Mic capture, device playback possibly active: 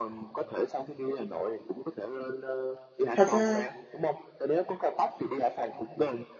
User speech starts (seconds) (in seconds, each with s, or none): 3.1 s